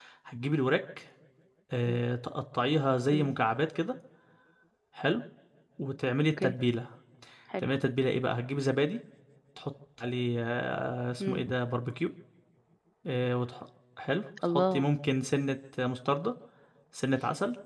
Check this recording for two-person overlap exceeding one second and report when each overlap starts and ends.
none

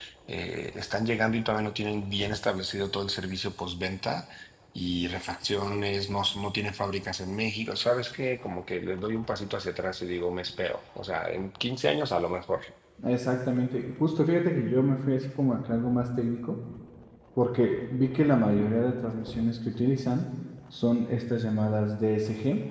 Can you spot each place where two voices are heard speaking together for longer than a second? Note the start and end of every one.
none

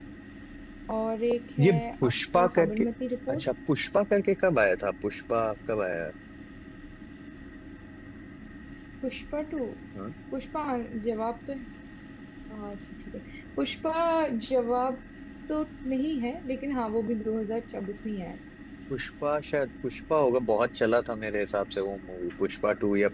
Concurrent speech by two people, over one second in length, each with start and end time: 1.6-2.9

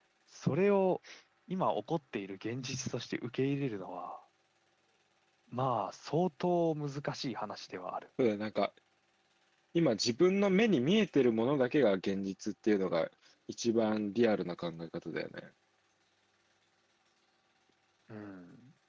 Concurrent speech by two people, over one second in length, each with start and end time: none

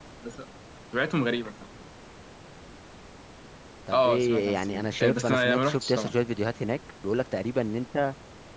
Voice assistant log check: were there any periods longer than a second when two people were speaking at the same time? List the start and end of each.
3.9-6.1

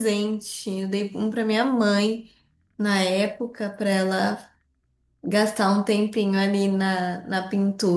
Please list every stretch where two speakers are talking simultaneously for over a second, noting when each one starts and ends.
none

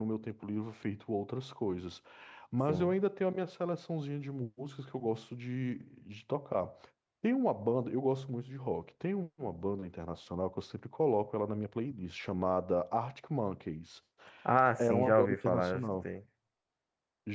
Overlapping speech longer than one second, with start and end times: 14.8-16.1

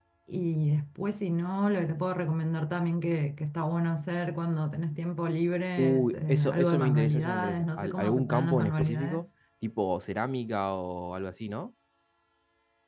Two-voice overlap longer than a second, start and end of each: 5.8-9.3

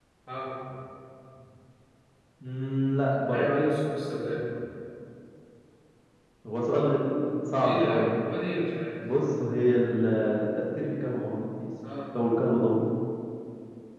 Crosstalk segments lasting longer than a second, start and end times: none

